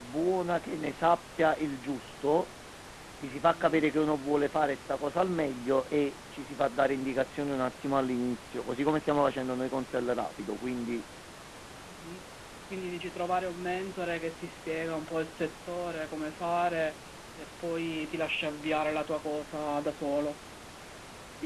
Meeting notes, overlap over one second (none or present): none